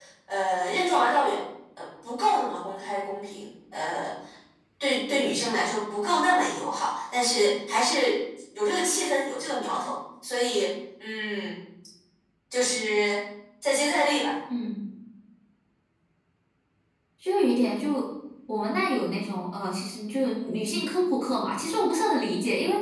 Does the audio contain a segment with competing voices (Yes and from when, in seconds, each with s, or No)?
No